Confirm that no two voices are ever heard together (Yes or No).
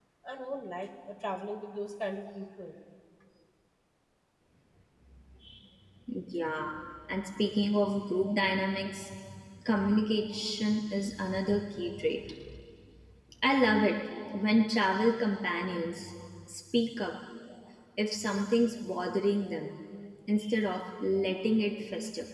Yes